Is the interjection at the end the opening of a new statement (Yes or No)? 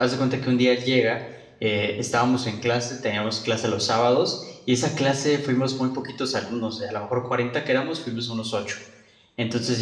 No